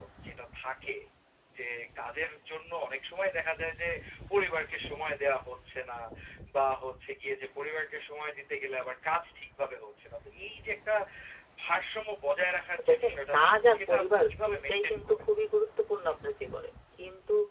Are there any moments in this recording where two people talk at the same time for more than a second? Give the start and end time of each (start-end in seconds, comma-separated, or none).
12.9-15.2